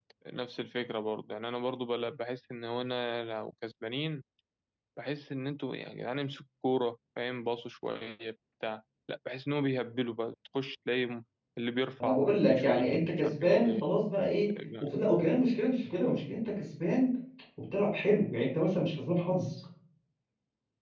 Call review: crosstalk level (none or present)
present